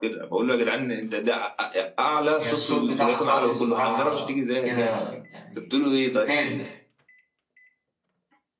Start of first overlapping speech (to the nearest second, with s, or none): 2 s